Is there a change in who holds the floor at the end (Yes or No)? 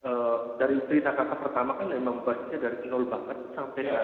No